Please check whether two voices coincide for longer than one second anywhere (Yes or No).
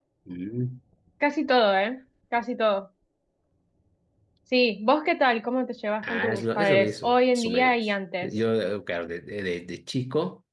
Yes